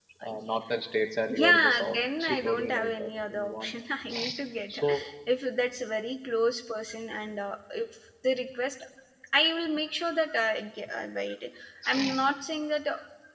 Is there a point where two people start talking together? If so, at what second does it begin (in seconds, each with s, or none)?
1.3 s